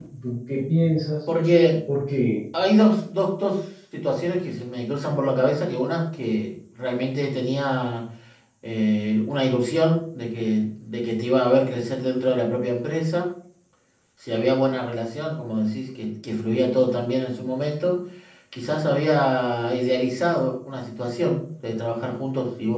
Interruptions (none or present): none